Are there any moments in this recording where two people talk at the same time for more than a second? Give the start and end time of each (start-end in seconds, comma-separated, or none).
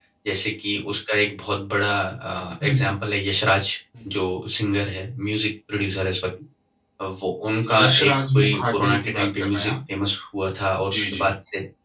7.8-9.7